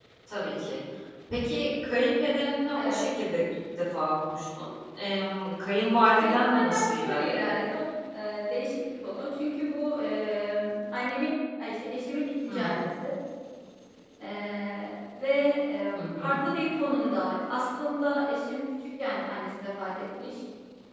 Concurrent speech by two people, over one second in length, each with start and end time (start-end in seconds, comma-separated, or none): 6.2-7.5